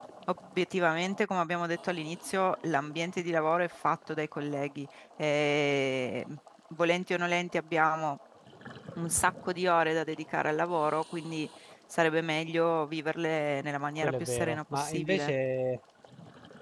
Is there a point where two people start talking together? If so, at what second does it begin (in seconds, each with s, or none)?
14.0 s